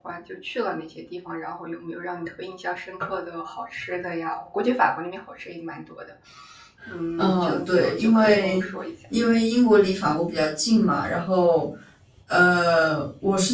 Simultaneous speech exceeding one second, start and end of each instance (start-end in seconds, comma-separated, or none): 7.2-8.7